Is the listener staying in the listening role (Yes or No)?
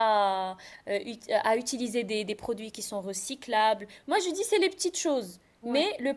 Yes